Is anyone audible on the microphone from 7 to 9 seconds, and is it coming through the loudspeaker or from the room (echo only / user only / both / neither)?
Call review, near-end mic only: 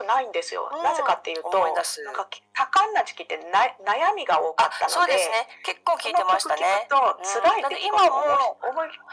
echo only